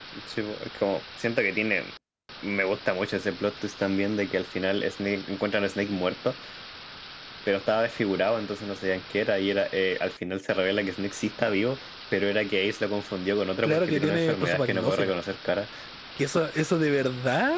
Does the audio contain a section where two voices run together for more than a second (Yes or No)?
Yes